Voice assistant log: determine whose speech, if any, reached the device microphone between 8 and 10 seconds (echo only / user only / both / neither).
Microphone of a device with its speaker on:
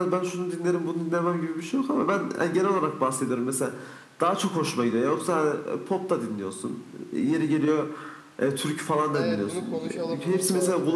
both